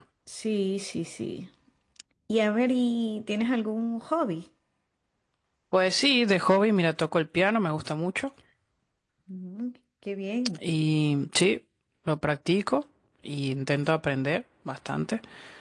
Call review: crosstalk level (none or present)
none